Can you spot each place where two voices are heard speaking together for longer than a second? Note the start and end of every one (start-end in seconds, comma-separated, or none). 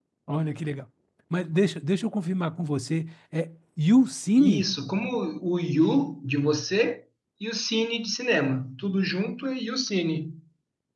none